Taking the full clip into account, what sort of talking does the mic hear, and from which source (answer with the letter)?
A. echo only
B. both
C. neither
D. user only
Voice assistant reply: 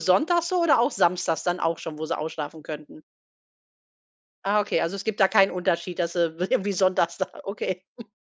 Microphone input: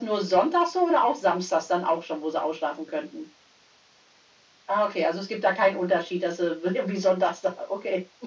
A